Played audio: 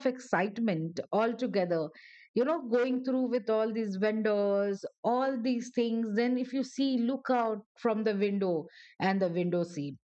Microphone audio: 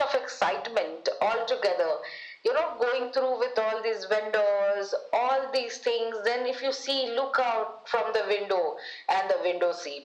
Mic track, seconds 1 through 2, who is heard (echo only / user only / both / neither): echo only